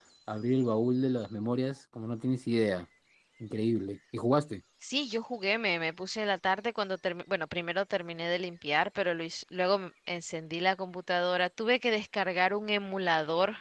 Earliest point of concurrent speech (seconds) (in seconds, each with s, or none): none